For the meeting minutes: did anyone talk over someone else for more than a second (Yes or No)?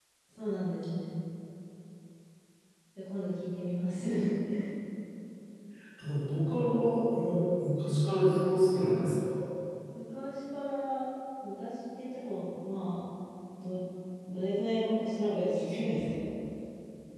No